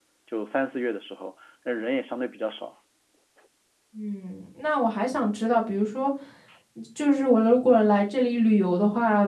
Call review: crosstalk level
none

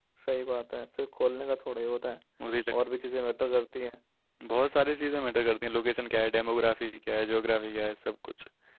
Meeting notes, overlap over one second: none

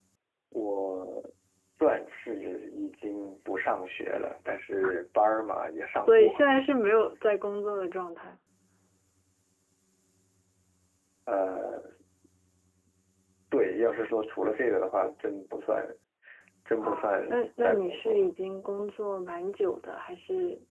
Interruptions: present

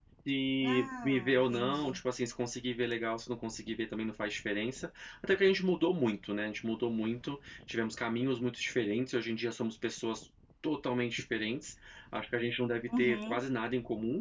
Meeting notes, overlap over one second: present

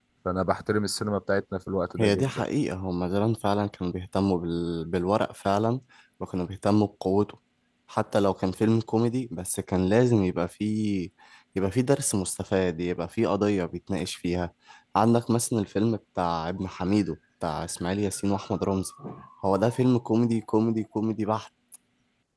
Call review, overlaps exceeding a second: none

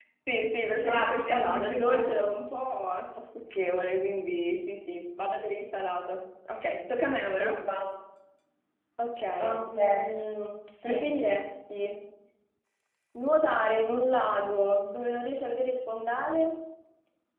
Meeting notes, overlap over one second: present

